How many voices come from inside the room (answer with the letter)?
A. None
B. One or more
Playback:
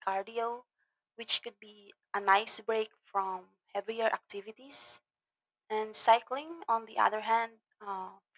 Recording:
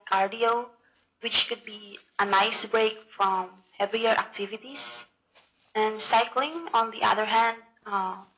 A